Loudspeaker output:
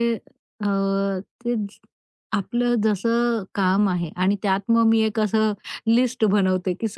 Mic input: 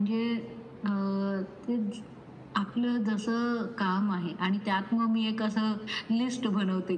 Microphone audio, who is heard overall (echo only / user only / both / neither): echo only